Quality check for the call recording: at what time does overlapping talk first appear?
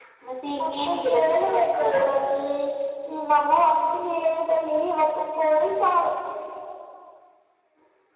0.6 s

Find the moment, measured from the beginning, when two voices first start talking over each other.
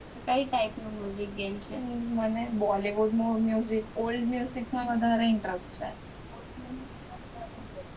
none

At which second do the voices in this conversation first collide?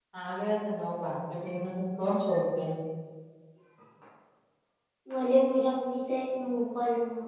none

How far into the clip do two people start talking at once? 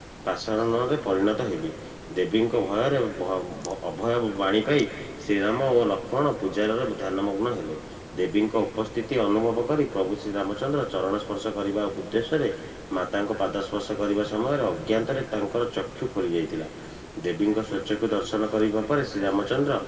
none

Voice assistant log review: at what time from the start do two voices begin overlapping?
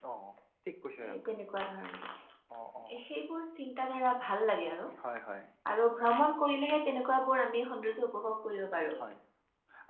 none

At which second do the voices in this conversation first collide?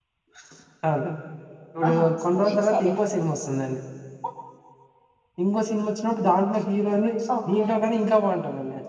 1.9 s

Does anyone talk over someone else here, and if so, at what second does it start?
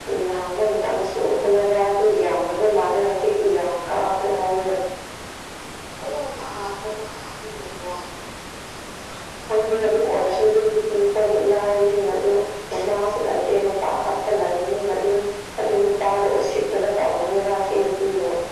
none

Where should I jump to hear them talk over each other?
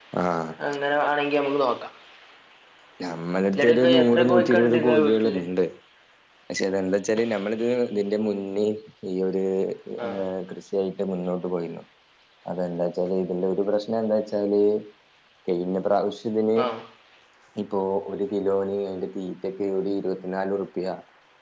3.6 s

